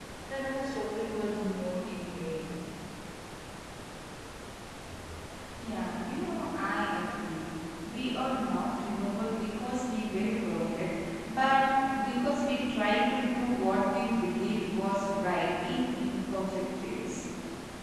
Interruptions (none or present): none